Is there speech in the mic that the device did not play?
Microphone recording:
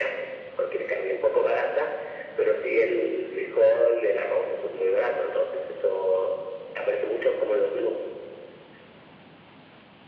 No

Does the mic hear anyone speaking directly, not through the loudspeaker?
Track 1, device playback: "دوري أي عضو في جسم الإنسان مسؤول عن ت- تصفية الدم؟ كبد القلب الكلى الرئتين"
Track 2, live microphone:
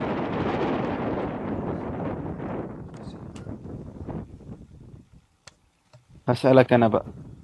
Yes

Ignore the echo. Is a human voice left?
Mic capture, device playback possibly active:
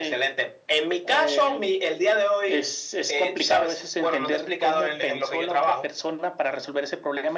No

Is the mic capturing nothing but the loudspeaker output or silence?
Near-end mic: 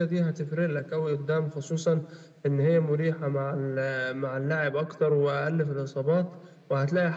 Yes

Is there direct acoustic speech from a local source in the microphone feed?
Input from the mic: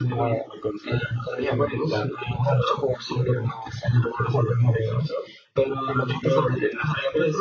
No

